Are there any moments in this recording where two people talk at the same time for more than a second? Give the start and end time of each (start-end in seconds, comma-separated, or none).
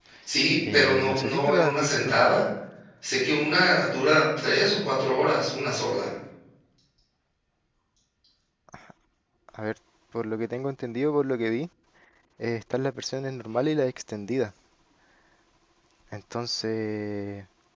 0.7-2.2